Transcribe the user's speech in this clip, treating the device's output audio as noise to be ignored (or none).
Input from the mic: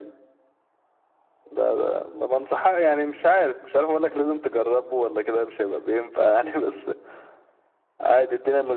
none